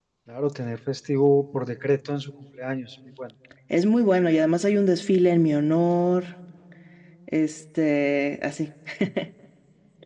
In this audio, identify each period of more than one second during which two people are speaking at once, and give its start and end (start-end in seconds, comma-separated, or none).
none